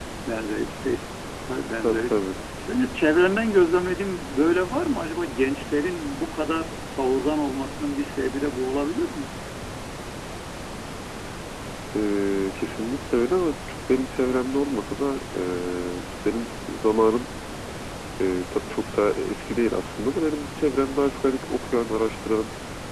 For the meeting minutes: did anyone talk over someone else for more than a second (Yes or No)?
No